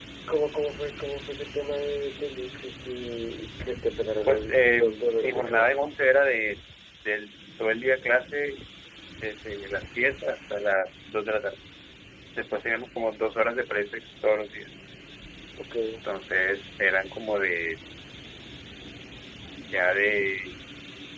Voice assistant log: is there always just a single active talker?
No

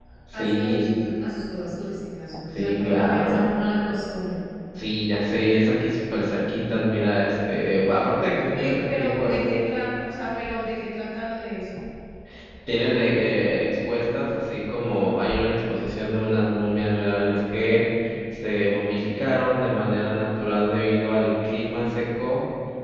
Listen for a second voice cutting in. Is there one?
Yes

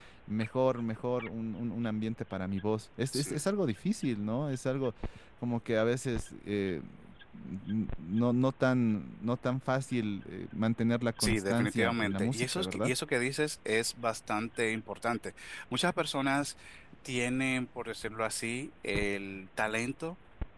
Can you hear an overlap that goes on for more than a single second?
Yes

